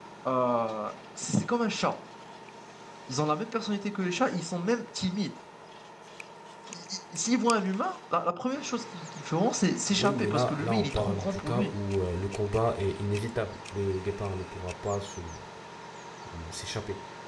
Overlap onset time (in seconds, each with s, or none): 10.0 s